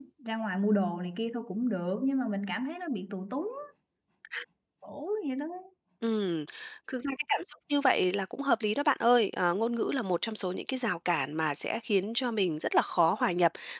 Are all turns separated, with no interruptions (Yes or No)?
Yes